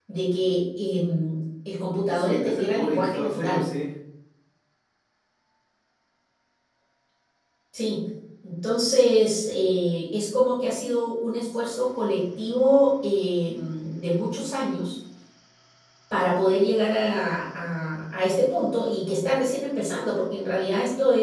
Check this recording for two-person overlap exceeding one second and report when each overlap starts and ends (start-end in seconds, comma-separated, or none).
2.1-3.6